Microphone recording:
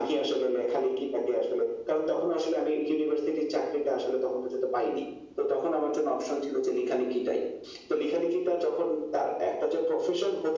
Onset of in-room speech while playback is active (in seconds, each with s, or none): none